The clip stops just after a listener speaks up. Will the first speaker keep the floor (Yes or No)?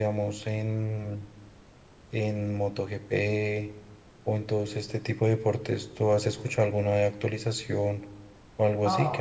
No